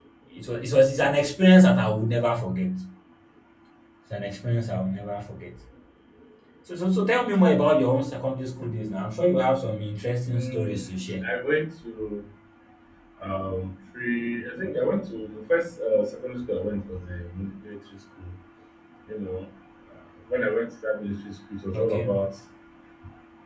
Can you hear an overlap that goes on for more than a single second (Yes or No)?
No